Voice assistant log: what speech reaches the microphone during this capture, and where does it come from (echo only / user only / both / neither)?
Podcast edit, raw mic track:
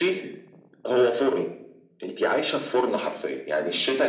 echo only